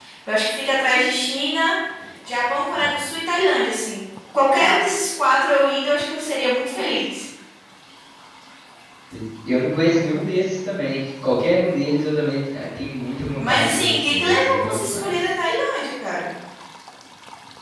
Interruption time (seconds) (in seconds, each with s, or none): 13.4 s